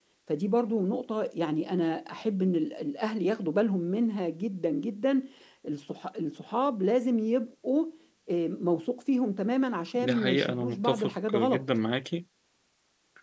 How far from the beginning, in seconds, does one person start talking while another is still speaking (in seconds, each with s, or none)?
9.9 s